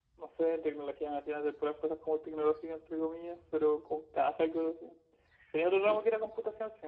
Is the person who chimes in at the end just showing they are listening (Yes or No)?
Yes